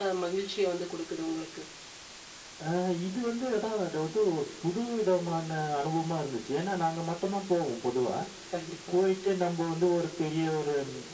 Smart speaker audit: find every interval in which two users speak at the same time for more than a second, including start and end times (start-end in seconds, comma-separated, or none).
none